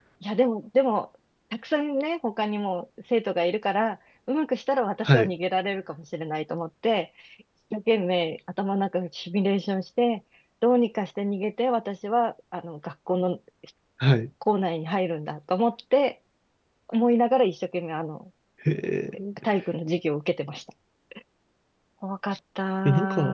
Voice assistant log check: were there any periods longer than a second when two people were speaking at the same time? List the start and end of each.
none

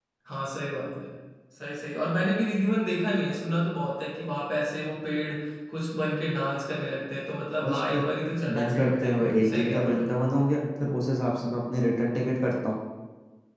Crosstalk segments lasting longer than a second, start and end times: 8.6-10.1

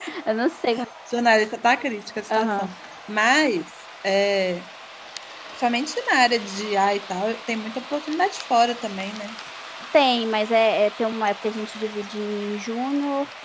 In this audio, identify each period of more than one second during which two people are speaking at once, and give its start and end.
none

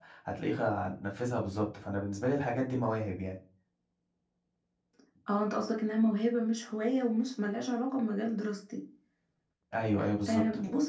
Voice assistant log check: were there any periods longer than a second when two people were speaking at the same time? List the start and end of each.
none

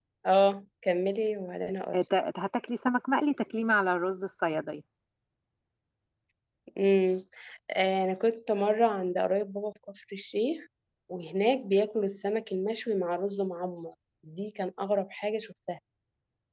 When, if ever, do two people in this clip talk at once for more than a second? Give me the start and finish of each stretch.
none

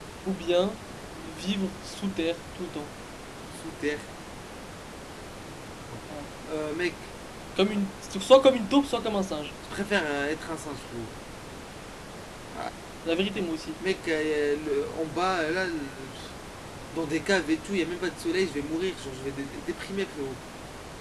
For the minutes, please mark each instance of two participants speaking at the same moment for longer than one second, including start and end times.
none

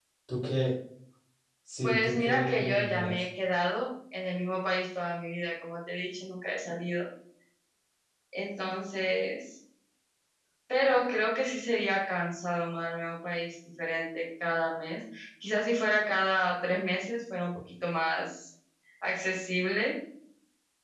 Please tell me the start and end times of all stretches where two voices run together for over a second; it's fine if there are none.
1.8-3.2

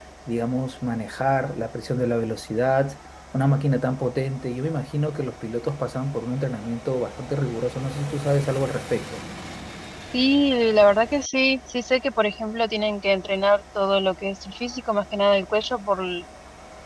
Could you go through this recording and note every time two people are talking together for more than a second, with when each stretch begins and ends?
none

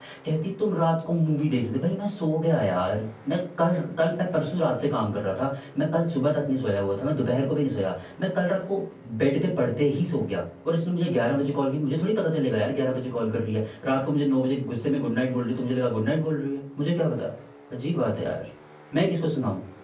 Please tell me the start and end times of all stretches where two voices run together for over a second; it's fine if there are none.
none

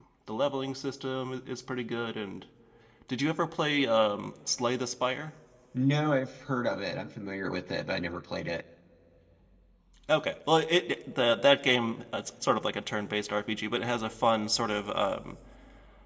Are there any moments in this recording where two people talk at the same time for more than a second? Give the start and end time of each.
none

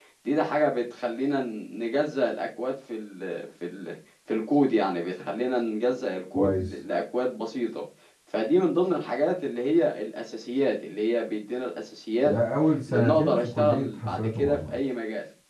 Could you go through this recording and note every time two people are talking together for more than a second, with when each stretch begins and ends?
12.9-14.8

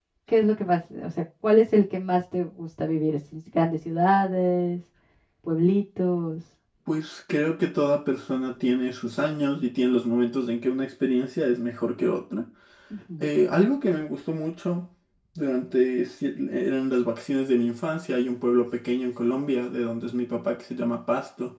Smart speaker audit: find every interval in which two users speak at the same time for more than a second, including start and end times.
none

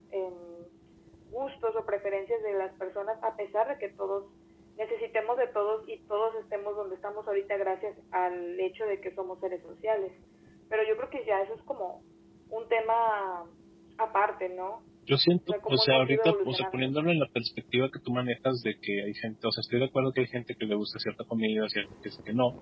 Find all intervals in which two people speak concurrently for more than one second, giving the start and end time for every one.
15.7-16.9

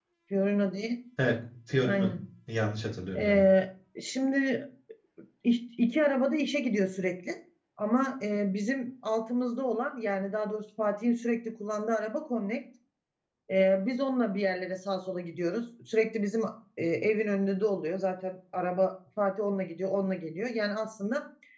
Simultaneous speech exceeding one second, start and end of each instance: none

